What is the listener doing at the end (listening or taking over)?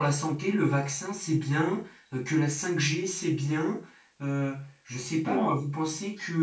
listening